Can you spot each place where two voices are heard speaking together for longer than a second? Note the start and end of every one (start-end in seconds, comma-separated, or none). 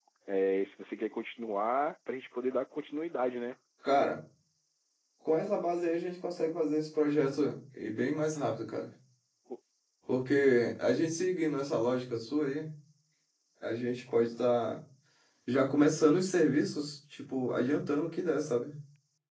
none